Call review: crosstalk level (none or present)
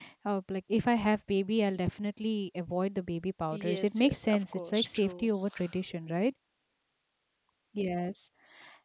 present